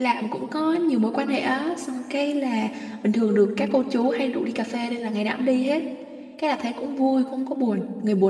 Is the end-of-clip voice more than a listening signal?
No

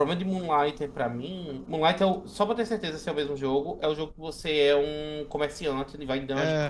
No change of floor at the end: Yes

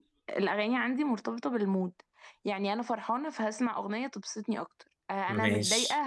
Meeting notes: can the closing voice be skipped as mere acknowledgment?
Yes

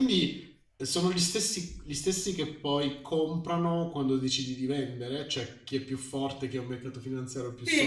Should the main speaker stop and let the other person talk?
Yes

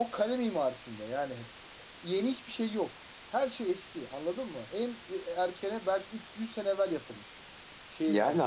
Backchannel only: No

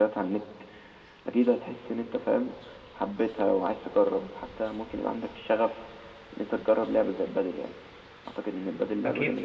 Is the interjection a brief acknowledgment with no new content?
No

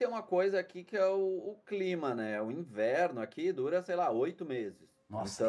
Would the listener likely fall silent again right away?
No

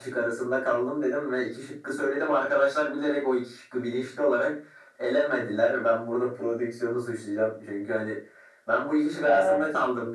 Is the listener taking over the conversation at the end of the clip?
No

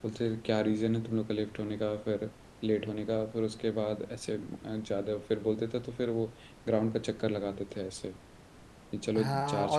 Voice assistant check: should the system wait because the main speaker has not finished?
No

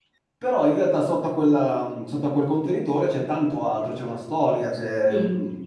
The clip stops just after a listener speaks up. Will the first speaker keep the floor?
Yes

